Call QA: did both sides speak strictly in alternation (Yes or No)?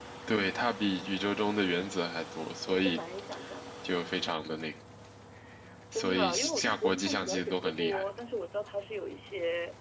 No